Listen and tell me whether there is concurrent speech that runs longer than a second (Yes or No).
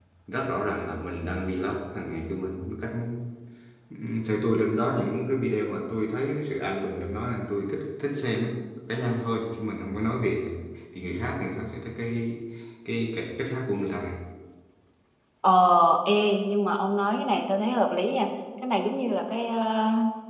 No